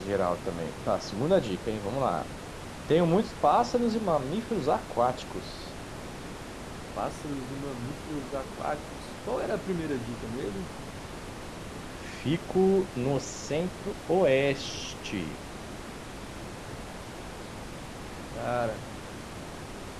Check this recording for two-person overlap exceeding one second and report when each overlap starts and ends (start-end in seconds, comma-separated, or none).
none